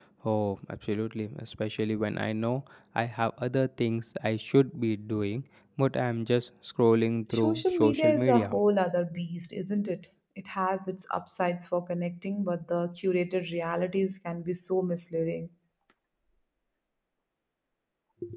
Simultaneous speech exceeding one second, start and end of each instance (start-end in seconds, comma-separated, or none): 7.3-8.5